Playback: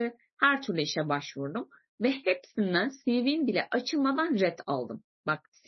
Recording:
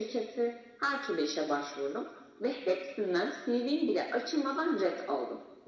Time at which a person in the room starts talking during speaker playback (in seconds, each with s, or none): none